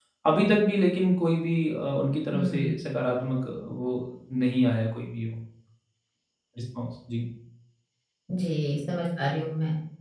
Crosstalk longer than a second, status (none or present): none